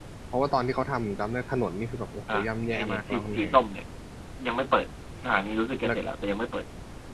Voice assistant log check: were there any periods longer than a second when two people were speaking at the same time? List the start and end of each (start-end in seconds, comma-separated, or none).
2.3-3.6